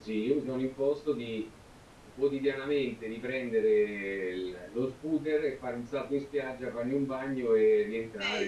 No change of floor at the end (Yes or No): Yes